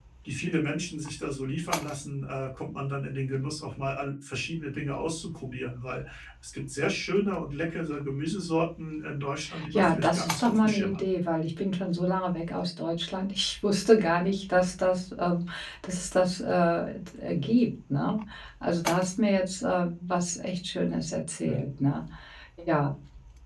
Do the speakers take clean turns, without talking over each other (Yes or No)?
No